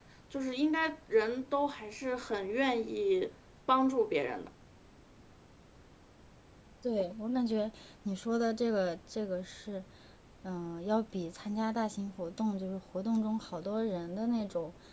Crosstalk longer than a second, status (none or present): none